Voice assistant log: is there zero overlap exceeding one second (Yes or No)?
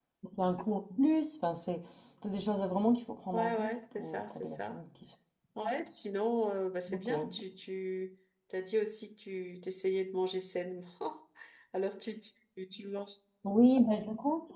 No